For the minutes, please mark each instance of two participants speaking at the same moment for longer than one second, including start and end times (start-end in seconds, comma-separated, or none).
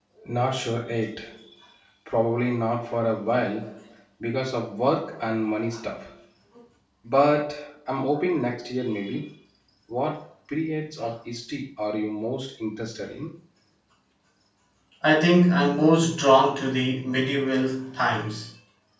none